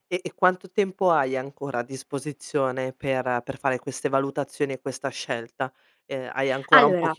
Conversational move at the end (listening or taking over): listening